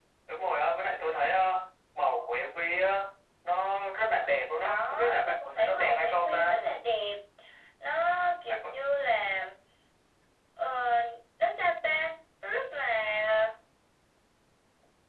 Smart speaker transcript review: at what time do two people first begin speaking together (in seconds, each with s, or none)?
4.6 s